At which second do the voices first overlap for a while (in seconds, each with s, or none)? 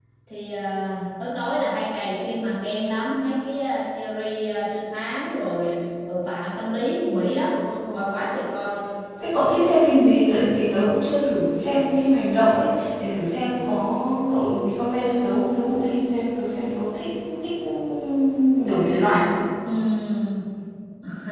none